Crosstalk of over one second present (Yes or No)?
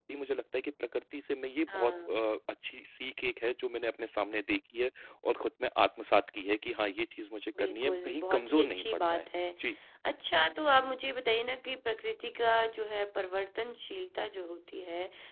Yes